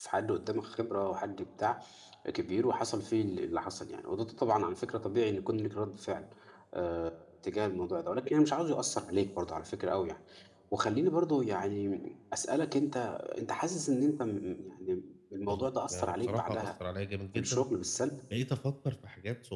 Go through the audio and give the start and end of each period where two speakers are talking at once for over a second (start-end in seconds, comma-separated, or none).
15.5-16.7